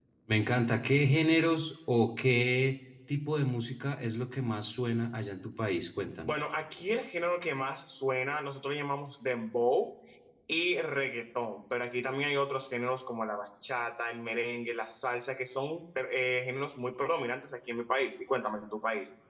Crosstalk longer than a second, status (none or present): none